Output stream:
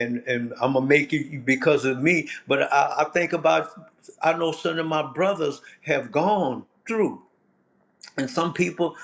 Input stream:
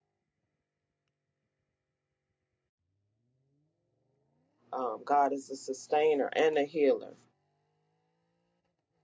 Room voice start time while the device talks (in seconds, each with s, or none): 4.7 s